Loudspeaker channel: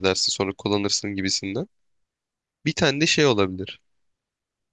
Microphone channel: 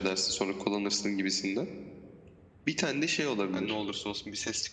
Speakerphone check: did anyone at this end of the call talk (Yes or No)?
Yes